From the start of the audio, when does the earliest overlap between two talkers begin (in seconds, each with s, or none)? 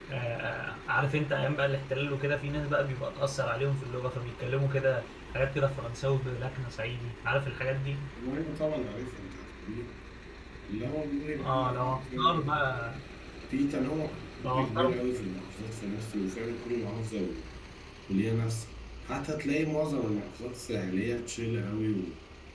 11.4 s